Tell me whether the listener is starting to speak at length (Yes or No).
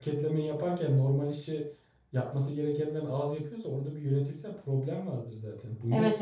Yes